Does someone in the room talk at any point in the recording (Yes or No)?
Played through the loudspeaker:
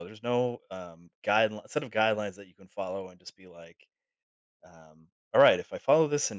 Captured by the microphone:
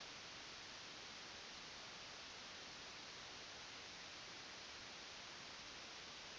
No